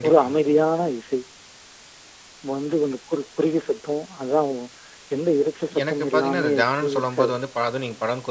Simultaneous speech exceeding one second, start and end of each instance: 5.8-7.3

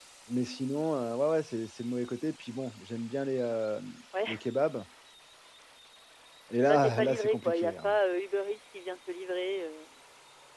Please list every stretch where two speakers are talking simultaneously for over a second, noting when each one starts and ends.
6.7-8.0

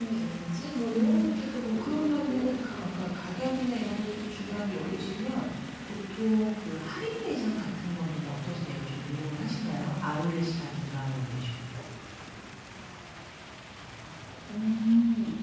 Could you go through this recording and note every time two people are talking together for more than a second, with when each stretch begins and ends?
0.8-3.5

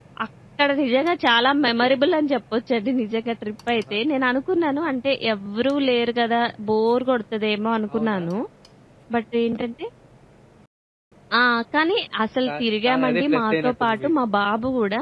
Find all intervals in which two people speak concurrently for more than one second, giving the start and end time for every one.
12.5-14.1

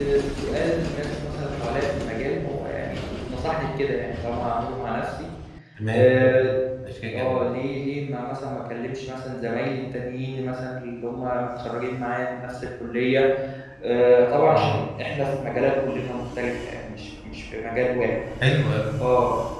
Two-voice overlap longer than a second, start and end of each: none

